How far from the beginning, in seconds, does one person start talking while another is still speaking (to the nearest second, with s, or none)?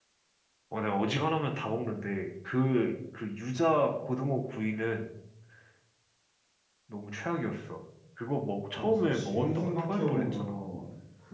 9 s